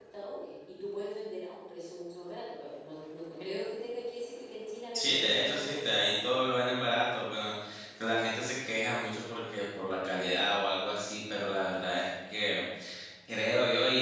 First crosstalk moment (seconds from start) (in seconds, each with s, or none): 4.9 s